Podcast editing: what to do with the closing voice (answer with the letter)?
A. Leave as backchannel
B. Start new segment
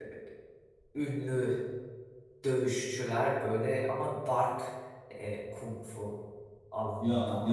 A